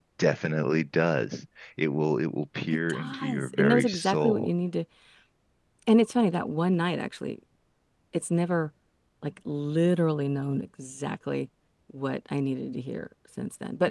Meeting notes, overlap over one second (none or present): present